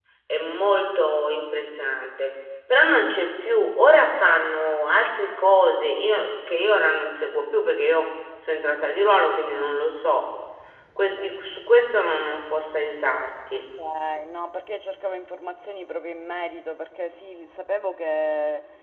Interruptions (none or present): none